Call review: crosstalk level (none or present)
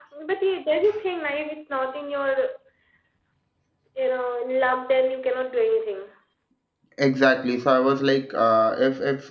none